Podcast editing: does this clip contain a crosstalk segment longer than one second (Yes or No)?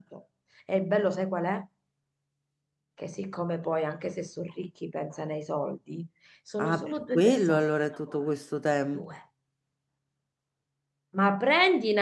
Yes